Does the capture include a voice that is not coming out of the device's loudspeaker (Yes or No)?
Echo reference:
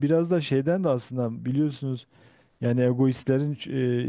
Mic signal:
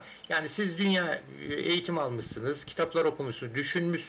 Yes